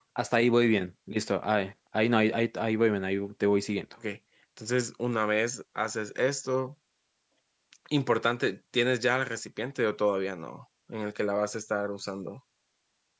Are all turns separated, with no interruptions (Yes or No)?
Yes